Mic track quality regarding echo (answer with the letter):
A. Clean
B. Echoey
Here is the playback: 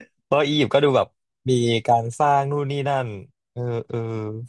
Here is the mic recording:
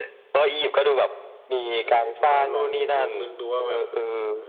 B